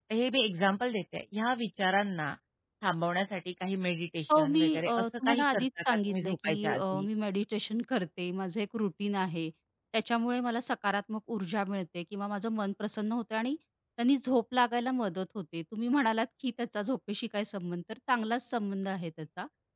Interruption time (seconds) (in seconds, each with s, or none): 4.3 s